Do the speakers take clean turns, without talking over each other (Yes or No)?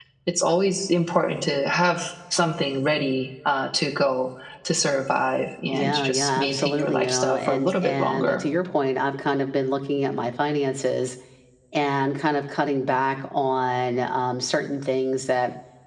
No